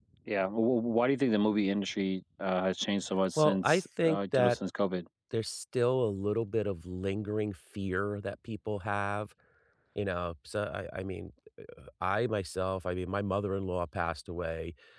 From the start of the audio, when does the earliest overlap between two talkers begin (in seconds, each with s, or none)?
3.4 s